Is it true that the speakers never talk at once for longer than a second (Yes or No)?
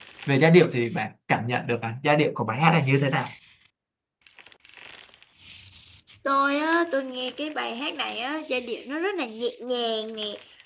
Yes